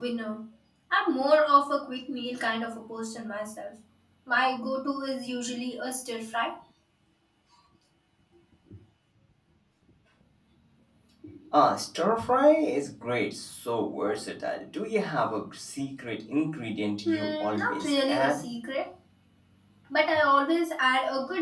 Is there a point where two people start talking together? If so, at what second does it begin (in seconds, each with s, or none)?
17.1 s